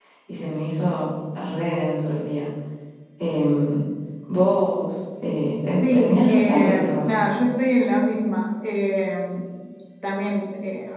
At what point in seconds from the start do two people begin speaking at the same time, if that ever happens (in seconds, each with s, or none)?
5.8 s